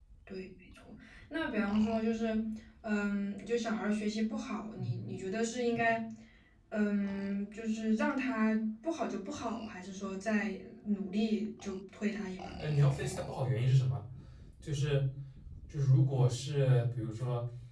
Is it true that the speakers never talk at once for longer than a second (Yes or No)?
Yes